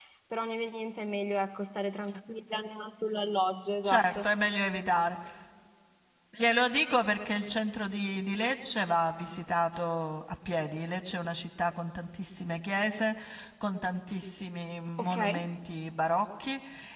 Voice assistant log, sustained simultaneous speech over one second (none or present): none